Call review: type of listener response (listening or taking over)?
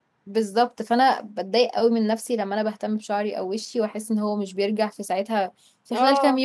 taking over